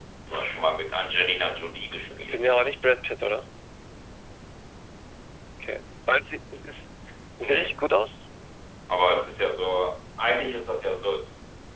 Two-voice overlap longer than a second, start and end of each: none

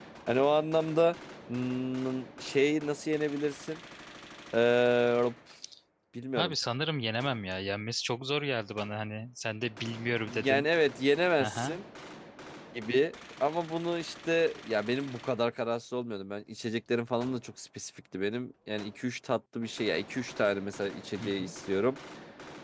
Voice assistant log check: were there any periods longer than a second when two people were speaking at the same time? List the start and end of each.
none

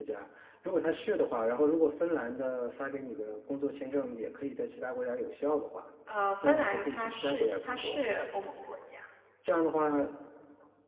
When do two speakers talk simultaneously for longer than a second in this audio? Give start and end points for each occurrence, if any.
6.5-8.0

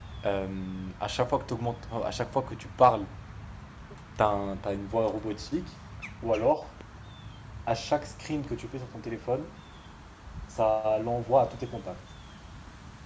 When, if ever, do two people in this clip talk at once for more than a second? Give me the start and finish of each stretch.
none

